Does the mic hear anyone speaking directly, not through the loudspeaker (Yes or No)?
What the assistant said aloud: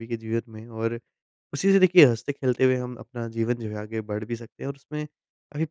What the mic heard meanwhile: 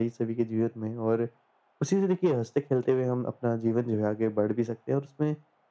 No